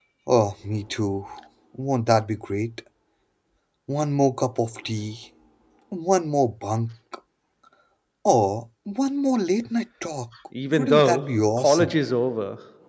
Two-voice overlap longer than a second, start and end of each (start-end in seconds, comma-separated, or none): 10.8-11.9